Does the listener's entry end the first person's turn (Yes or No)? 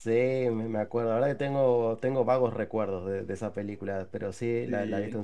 No